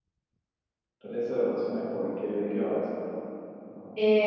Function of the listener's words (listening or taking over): taking over